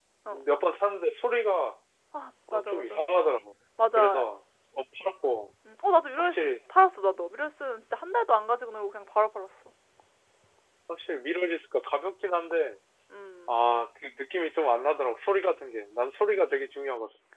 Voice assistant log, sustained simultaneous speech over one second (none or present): none